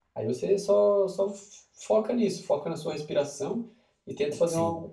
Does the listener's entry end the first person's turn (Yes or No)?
No